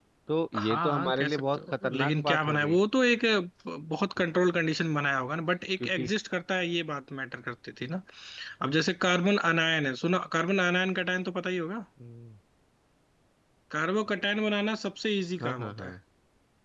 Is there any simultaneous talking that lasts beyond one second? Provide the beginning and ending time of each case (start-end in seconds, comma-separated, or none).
0.6-2.8